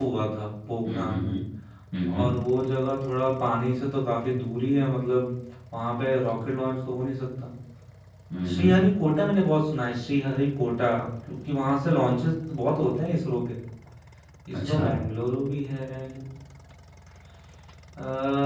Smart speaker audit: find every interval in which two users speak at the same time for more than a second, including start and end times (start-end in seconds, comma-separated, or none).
none